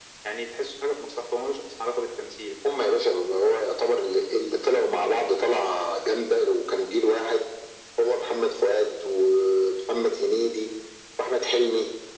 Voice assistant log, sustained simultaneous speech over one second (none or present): none